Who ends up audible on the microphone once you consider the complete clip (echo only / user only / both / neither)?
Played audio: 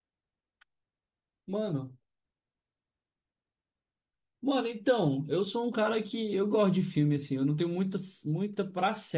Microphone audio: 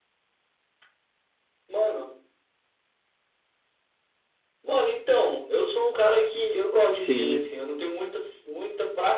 both